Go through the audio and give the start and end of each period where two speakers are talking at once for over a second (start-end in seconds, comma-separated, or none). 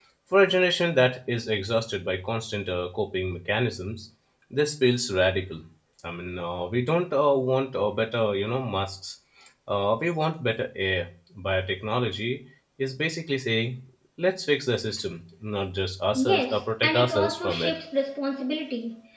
16.2-17.7